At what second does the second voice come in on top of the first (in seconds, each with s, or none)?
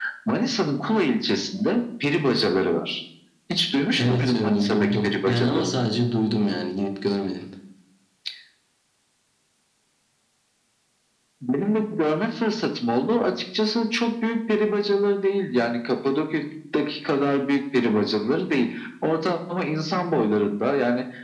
4.0 s